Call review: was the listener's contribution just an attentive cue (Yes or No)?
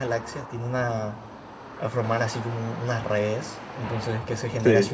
Yes